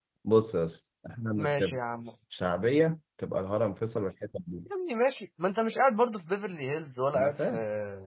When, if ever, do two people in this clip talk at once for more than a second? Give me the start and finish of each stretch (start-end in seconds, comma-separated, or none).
none